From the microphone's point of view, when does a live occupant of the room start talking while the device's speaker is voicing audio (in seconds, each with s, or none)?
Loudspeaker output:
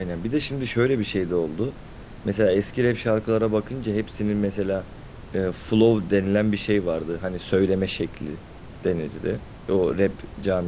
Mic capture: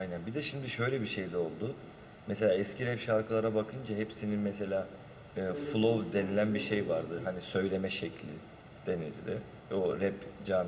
5.5 s